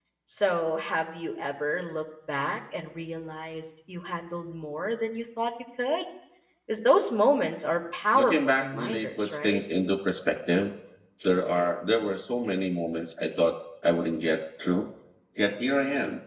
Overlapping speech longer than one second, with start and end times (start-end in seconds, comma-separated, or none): 8.1-9.6